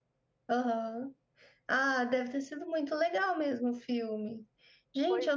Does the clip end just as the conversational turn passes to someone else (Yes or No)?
No